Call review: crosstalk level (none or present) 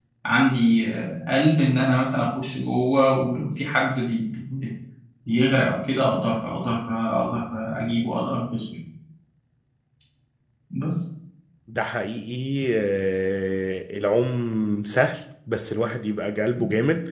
none